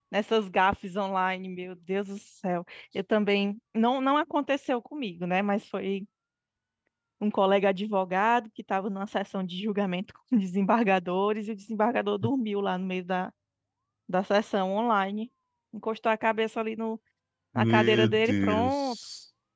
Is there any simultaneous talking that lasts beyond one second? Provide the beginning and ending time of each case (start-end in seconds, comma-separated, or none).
17.6-19.0